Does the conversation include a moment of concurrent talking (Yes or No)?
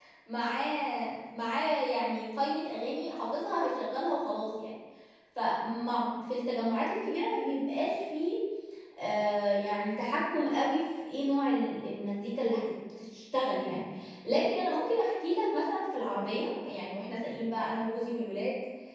No